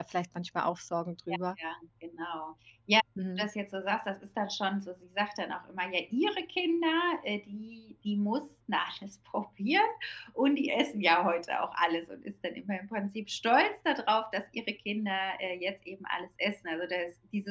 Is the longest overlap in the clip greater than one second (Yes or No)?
No